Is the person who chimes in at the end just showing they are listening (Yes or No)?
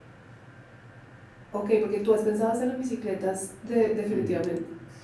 No